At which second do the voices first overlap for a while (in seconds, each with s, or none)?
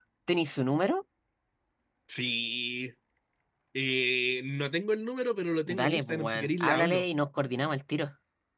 5.7 s